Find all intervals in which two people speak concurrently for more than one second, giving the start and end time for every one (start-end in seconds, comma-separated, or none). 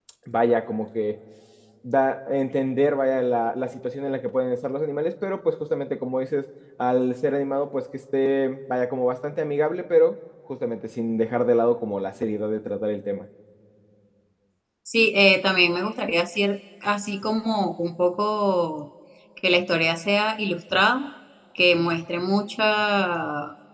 none